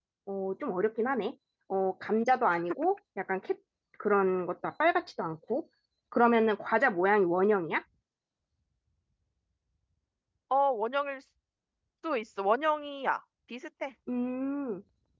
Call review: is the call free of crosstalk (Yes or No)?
Yes